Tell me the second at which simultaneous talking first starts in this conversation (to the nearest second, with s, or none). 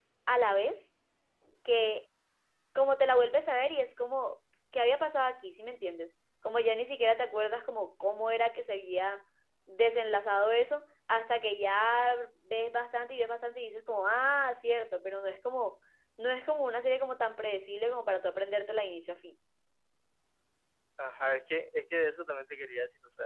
none